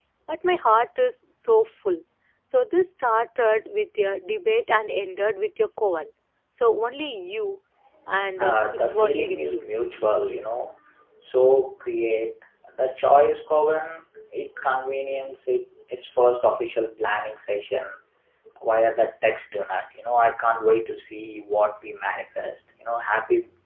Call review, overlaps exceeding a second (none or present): present